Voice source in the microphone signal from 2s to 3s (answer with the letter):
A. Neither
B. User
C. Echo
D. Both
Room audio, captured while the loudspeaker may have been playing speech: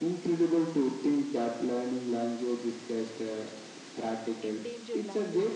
C